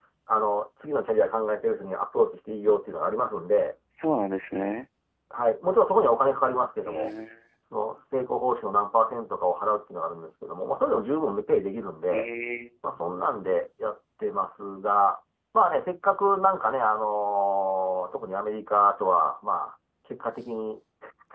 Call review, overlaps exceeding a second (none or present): none